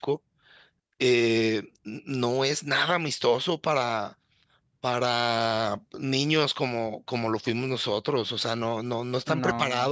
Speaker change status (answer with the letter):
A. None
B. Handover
A